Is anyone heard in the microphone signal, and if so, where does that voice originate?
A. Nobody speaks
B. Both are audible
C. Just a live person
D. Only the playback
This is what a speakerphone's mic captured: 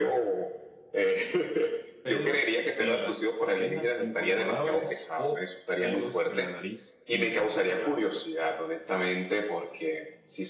B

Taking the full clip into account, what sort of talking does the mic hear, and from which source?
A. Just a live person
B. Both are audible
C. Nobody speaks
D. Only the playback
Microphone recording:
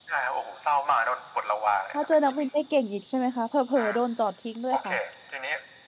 B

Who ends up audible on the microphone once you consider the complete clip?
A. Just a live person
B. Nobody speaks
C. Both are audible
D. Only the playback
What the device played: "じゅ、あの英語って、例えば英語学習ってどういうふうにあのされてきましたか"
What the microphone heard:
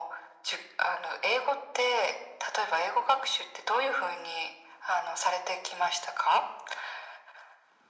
D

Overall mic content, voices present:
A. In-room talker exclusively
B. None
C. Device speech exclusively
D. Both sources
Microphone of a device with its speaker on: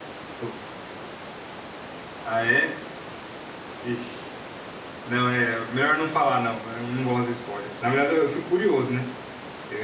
A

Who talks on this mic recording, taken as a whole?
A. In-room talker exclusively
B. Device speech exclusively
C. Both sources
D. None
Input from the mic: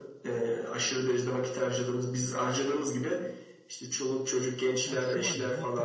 C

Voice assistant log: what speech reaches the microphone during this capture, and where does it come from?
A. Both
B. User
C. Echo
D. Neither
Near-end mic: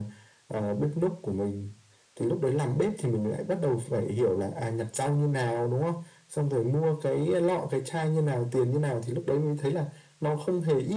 C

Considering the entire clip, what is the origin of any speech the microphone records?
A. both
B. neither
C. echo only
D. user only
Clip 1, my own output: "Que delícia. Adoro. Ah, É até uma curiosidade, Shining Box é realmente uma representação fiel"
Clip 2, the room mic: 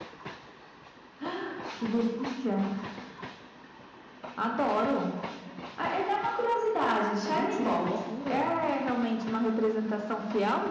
A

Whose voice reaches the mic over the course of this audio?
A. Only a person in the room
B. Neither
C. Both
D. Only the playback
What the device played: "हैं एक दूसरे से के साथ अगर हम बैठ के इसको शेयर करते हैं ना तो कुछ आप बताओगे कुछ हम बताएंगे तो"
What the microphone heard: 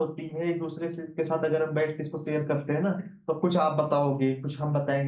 D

